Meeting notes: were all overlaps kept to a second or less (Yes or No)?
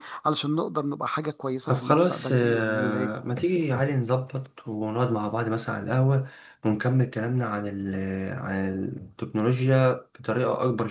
No